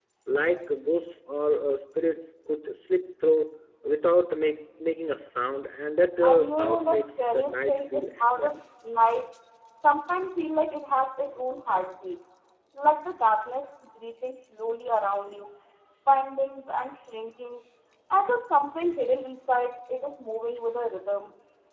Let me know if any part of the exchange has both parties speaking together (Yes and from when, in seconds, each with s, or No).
Yes, from 6.2 s